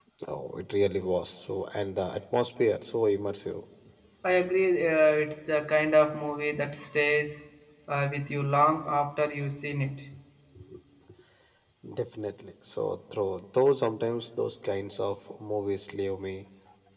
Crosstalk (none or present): none